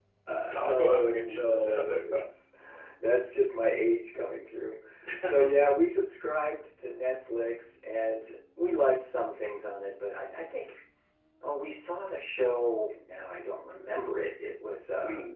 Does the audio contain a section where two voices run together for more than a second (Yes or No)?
Yes